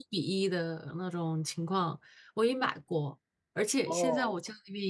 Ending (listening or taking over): listening